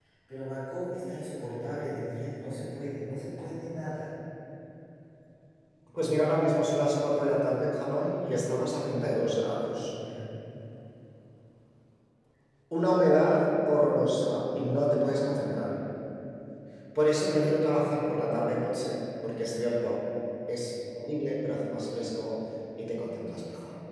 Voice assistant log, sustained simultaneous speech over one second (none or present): none